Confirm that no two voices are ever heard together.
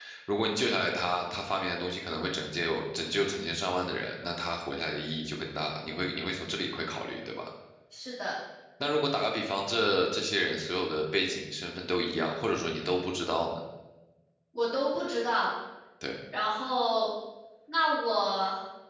Yes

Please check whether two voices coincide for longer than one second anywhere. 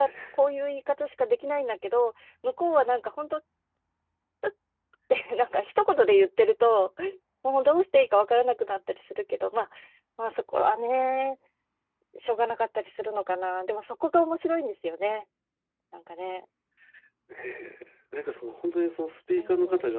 No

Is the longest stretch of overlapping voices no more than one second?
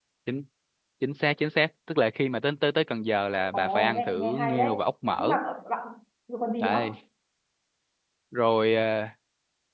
No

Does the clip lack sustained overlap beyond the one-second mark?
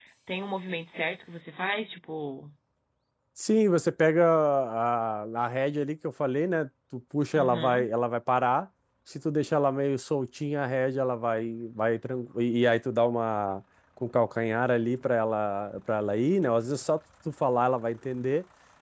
Yes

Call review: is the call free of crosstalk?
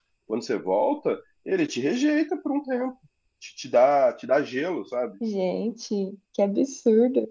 Yes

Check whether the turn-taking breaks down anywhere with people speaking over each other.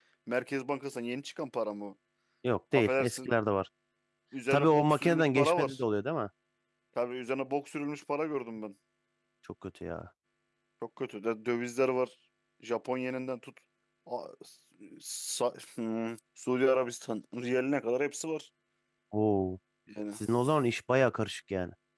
Yes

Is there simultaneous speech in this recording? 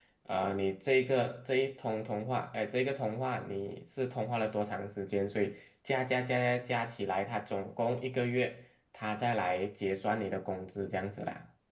No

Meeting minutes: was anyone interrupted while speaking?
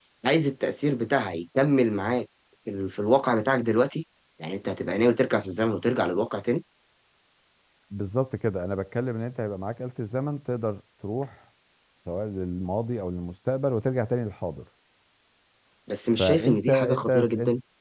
Yes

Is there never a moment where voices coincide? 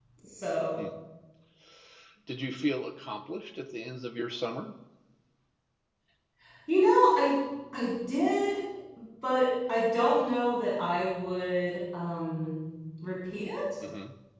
Yes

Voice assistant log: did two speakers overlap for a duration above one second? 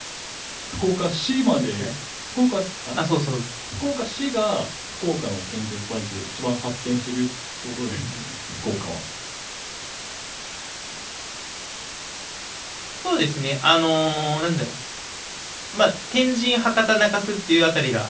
No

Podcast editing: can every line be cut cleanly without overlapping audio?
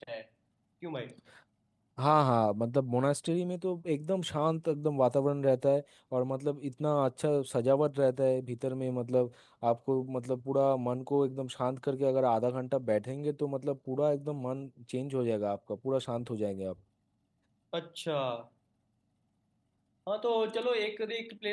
Yes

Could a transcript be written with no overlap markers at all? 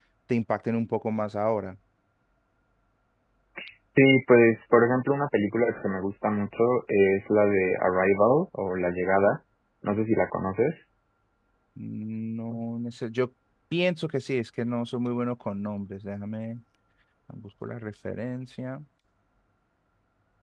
Yes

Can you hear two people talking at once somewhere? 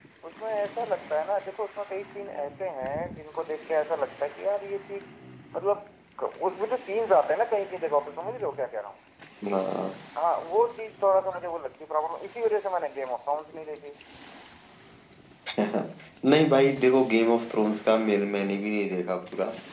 No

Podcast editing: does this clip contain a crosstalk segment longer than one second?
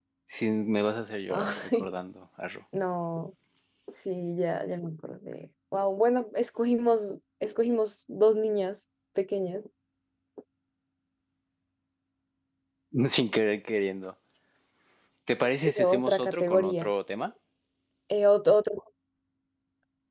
Yes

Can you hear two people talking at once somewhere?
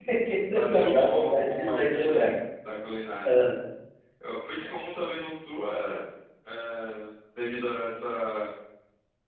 Yes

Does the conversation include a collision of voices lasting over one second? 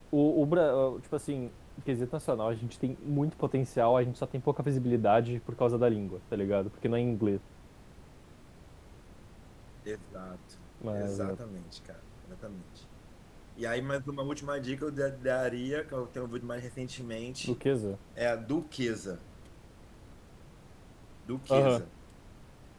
No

